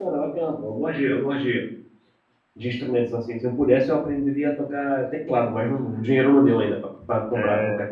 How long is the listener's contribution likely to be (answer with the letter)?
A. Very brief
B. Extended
B